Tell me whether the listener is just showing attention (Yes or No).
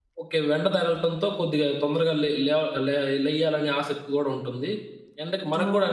Yes